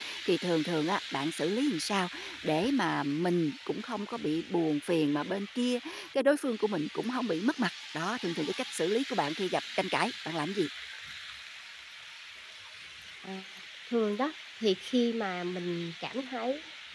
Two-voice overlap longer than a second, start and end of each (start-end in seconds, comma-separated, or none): none